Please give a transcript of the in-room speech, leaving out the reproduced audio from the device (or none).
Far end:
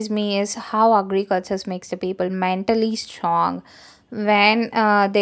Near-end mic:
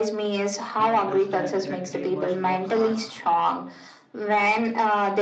They understand that they must work hard,